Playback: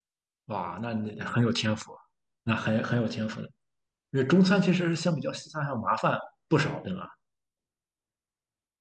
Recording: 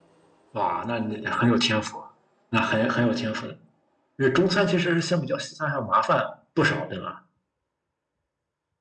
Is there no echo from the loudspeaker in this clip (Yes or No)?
No